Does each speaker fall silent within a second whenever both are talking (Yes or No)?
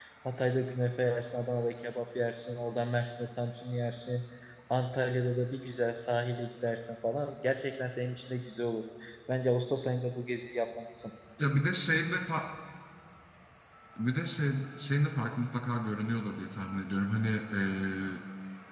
Yes